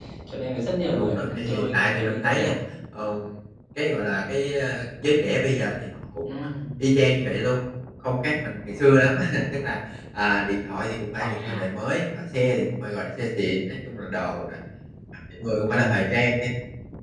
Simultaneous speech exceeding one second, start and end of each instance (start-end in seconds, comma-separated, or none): 0.9-2.4